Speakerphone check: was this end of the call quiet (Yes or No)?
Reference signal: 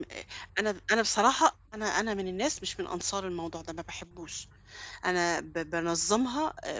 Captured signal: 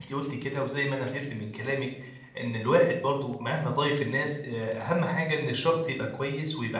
No